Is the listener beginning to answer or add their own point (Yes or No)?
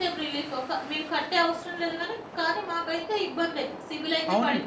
Yes